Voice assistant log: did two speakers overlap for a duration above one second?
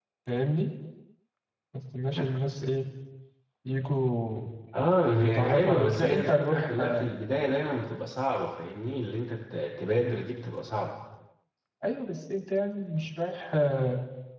Yes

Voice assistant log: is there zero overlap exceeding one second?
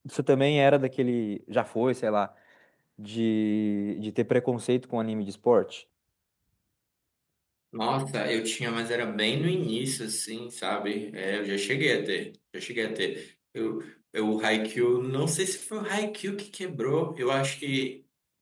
Yes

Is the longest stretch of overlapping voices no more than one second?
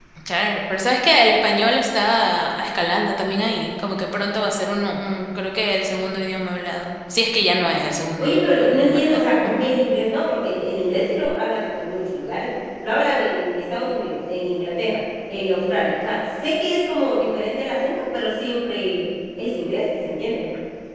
No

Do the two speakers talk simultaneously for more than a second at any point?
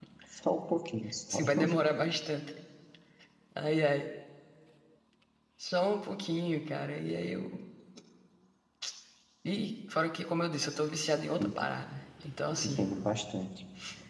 No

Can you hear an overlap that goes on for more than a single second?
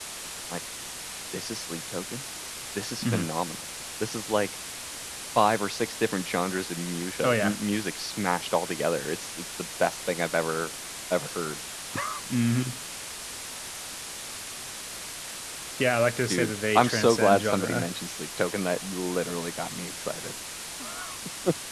Yes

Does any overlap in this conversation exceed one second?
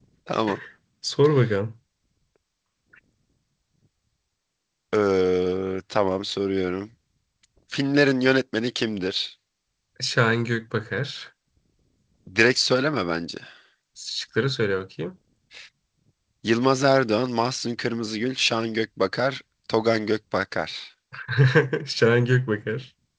No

